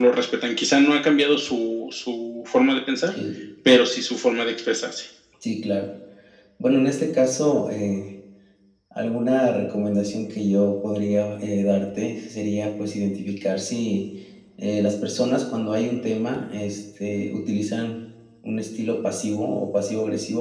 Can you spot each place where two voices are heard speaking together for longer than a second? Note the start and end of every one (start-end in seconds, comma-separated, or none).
none